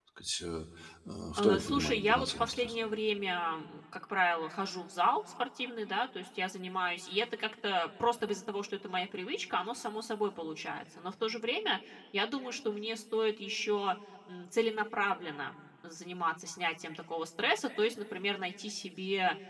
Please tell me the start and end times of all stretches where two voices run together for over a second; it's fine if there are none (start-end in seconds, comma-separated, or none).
1.4-2.7